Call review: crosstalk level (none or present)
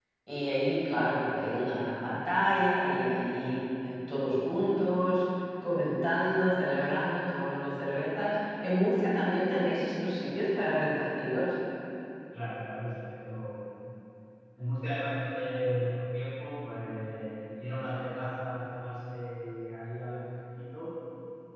none